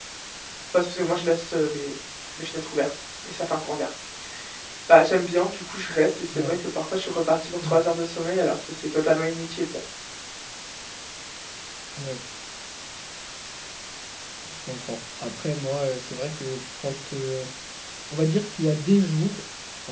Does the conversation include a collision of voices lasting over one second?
No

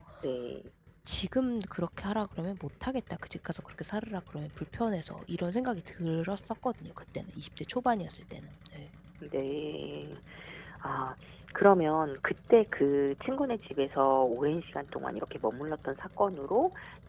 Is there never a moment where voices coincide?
Yes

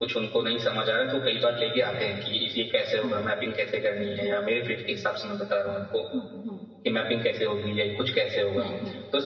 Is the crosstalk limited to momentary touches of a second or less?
Yes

